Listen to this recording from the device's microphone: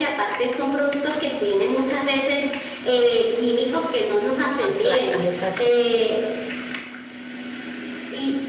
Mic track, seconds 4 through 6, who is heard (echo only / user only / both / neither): both